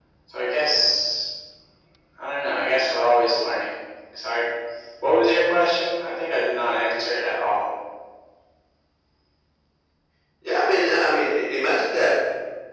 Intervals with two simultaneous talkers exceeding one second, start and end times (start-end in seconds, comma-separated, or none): none